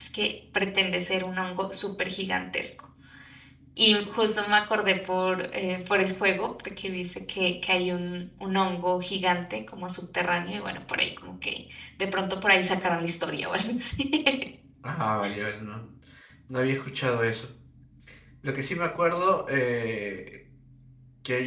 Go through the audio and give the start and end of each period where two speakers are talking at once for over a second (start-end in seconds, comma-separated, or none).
none